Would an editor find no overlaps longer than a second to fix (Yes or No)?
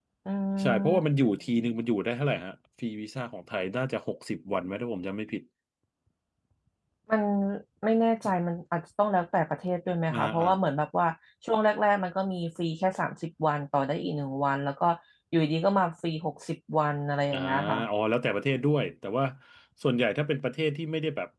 Yes